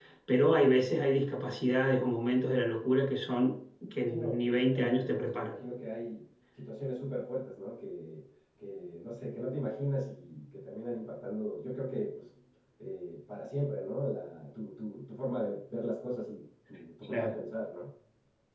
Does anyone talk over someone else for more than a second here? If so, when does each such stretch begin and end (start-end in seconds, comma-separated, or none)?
4.1-5.6